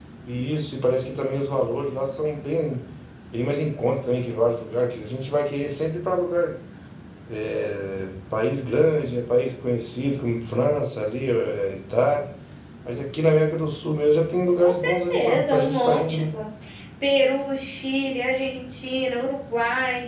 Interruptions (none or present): present